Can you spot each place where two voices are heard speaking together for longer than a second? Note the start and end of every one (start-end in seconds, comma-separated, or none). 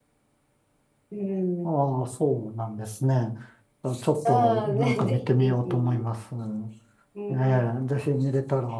4.2-6.0